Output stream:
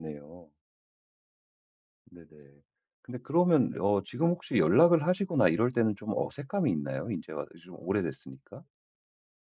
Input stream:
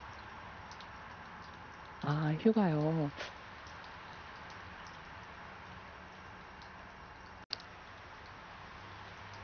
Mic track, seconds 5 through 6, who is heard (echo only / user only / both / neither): neither